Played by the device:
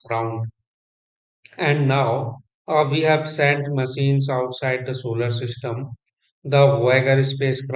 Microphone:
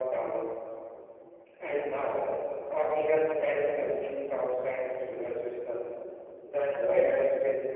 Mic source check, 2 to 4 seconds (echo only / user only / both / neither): echo only